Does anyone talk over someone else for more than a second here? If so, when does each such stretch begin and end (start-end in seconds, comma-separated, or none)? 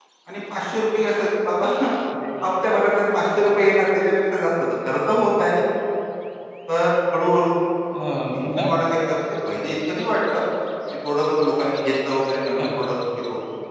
none